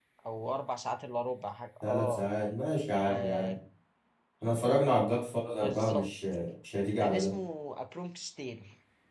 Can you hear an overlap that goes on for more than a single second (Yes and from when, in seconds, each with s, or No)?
No